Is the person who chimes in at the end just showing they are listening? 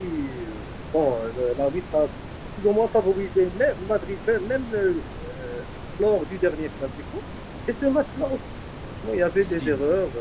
Yes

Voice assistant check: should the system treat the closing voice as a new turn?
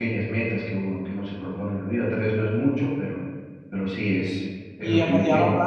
Yes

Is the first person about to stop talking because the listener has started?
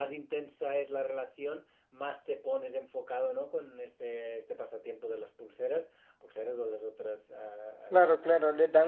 Yes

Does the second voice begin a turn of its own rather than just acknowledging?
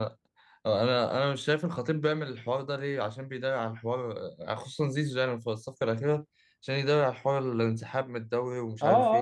Yes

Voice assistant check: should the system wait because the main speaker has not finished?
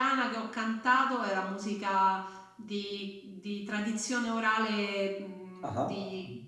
Yes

